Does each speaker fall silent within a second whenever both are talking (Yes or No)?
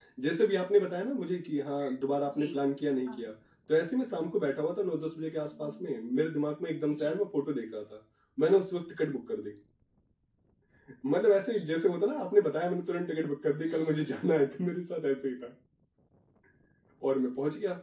Yes